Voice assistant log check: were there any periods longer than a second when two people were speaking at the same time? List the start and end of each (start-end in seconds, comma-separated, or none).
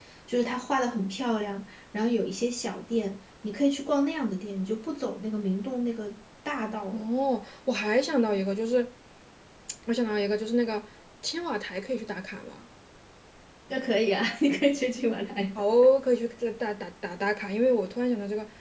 none